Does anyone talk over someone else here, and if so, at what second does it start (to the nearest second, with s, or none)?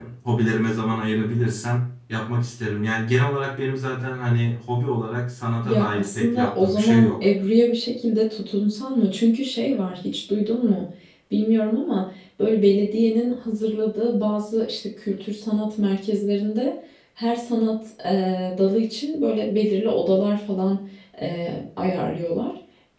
6 s